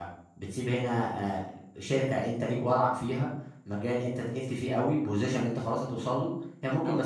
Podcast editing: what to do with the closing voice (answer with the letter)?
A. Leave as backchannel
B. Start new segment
A